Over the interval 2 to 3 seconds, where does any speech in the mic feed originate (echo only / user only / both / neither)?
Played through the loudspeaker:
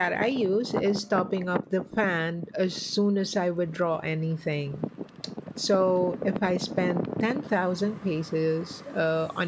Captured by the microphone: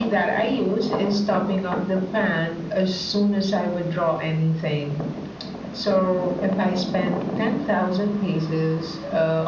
echo only